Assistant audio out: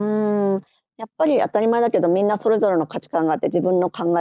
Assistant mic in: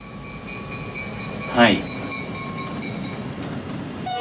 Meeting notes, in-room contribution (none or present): present